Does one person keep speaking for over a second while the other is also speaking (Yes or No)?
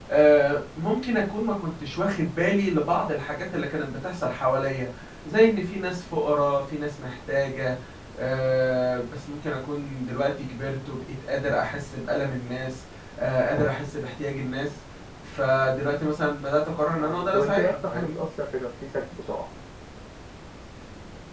Yes